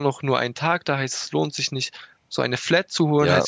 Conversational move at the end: listening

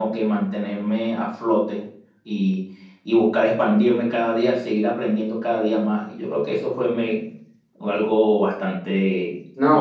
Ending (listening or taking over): taking over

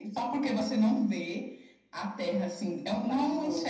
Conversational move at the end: listening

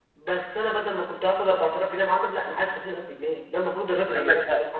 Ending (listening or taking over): taking over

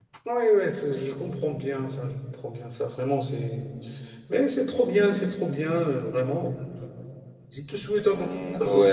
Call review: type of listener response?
taking over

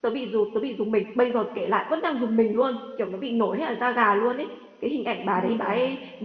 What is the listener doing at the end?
listening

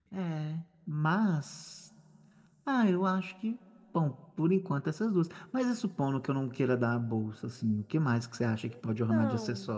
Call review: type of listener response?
taking over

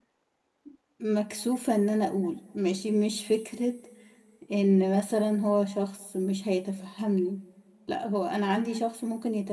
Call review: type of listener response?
listening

